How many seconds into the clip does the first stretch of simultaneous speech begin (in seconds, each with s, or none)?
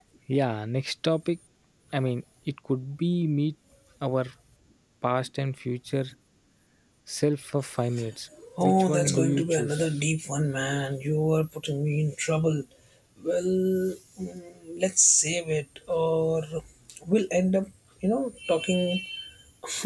8.6 s